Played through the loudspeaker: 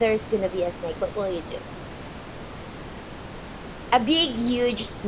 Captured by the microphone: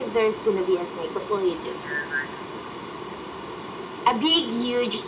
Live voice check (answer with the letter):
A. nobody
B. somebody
B